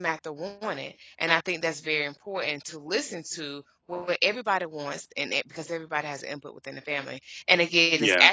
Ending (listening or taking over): listening